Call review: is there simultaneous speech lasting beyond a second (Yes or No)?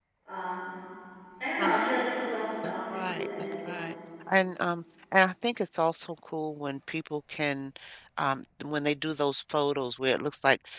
Yes